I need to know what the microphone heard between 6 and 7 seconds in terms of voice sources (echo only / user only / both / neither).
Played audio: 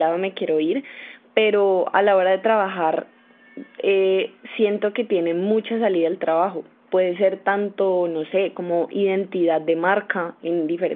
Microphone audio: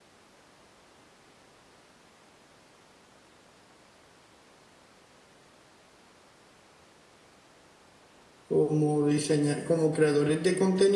neither